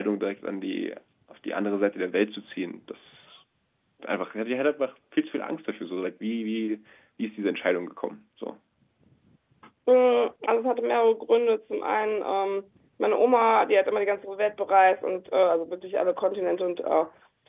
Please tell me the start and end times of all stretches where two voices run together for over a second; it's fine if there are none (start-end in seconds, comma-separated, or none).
none